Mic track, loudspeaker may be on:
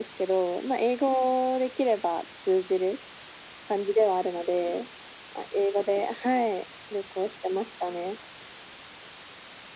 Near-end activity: none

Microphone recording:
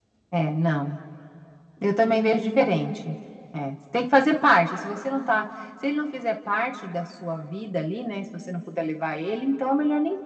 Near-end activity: none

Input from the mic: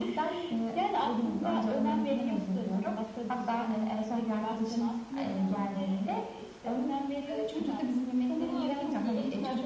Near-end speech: present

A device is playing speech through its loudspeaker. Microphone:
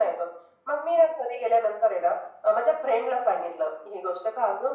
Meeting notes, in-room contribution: none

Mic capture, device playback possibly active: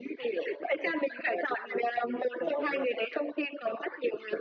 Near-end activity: none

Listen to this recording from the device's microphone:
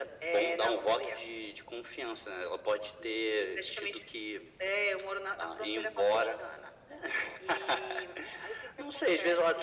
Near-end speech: none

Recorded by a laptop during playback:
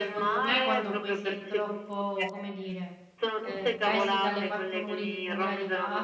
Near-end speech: present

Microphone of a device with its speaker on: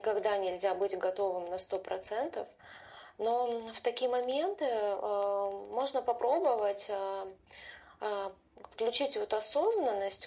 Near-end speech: none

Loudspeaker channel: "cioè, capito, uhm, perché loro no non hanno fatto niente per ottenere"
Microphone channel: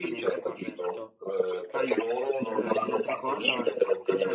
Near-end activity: present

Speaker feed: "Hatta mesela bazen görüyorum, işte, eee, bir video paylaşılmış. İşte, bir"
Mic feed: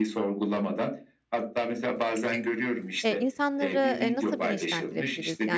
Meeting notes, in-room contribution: present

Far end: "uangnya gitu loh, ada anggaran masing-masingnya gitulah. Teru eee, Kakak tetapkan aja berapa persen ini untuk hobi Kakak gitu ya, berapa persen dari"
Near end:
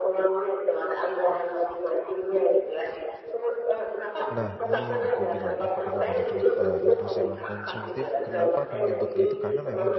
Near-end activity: present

